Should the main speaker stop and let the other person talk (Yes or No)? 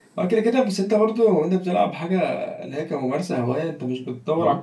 No